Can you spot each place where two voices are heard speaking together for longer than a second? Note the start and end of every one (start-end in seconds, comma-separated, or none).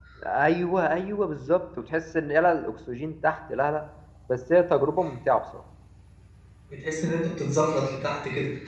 none